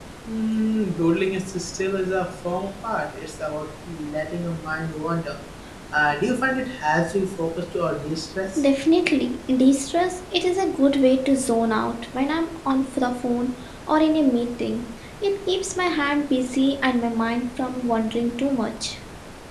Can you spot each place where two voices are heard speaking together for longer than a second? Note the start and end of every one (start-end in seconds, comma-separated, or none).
none